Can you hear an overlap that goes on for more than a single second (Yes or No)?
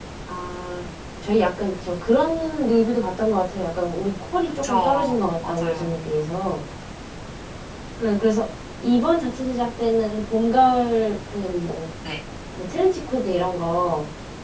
Yes